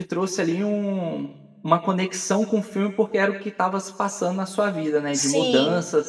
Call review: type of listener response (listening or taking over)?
taking over